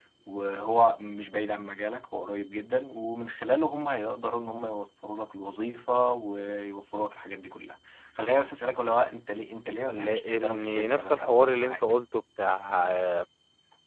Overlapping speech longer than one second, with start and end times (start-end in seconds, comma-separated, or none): 9.8-11.8